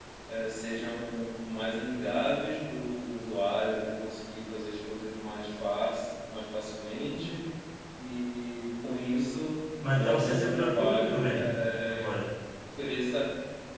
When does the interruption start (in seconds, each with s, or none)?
9.8 s